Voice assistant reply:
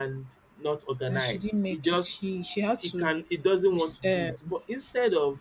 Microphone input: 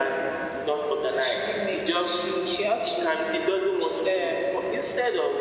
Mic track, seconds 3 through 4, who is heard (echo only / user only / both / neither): echo only